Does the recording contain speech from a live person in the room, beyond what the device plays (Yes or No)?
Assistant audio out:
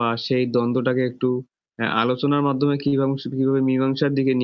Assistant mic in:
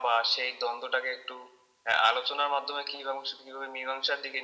No